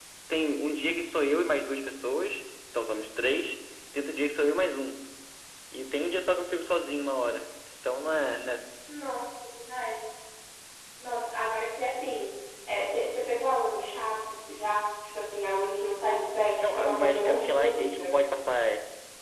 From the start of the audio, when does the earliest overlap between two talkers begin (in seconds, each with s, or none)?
16.6 s